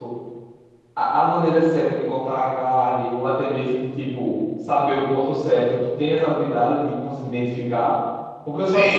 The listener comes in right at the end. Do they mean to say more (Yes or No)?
No